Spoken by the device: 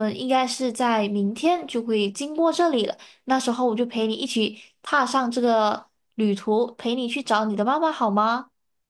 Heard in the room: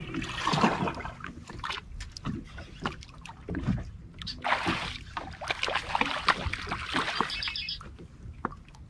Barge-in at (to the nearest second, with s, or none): none